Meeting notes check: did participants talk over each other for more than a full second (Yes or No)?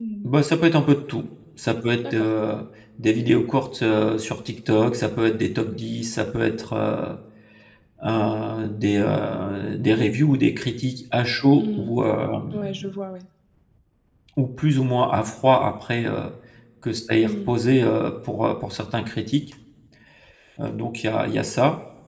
No